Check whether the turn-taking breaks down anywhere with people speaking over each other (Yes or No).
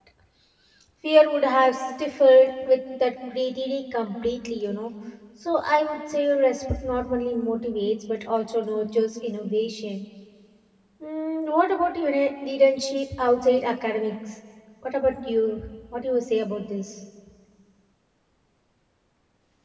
No